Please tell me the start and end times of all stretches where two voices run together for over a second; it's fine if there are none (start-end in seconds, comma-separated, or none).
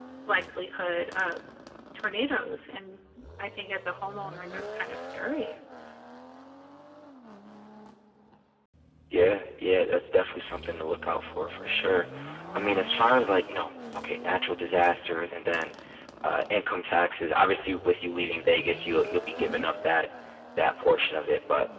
none